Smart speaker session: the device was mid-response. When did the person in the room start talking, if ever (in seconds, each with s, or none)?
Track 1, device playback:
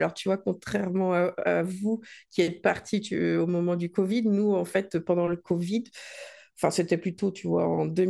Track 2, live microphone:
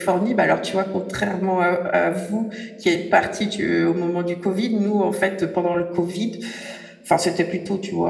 none